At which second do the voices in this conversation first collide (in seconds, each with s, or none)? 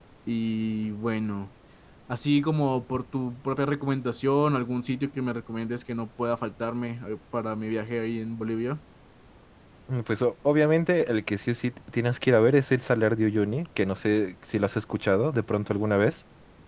none